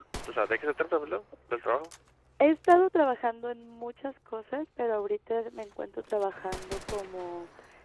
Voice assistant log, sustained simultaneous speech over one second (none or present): none